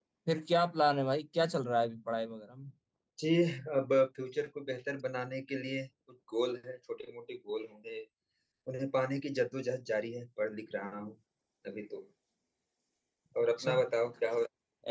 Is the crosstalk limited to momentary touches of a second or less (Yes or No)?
Yes